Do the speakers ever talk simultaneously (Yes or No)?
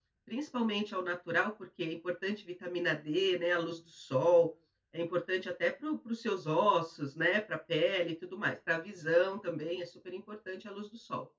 No